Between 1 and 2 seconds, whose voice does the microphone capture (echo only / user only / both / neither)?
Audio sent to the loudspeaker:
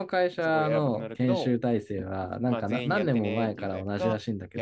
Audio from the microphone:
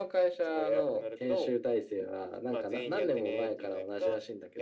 echo only